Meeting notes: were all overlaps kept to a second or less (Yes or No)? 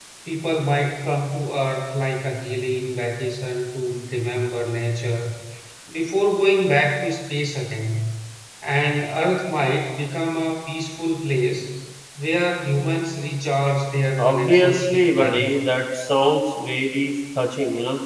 No